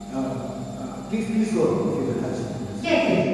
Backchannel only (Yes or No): No